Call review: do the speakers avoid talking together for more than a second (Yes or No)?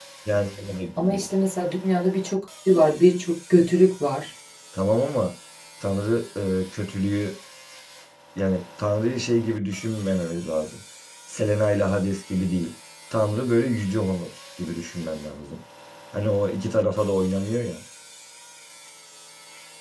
Yes